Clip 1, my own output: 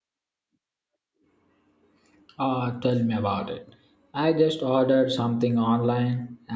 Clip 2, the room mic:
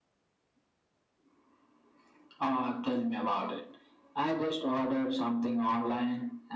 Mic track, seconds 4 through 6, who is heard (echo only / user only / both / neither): echo only